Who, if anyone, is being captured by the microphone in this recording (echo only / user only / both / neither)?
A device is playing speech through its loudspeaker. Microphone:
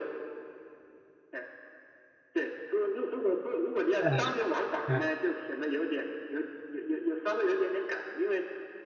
both